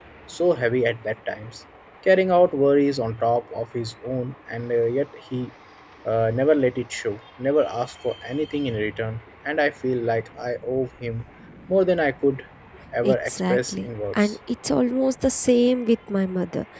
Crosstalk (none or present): present